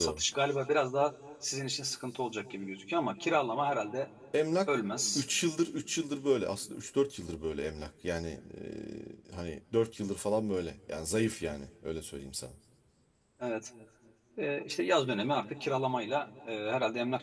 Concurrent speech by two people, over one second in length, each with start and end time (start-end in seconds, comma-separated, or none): none